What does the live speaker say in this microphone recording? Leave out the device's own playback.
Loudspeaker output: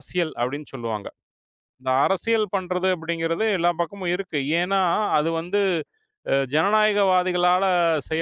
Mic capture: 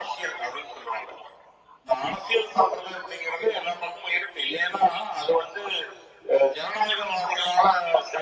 none

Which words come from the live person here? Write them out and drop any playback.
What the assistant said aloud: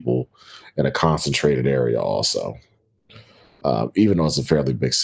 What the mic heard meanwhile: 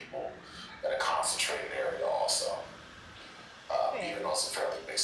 Fair.

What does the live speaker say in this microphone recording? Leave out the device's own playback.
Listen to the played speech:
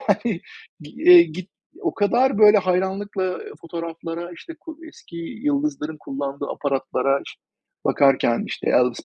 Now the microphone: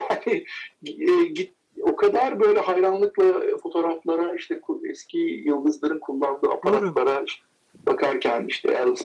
Doğru.

